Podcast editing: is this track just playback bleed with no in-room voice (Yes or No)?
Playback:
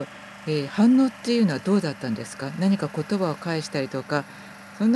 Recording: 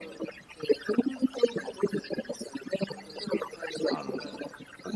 No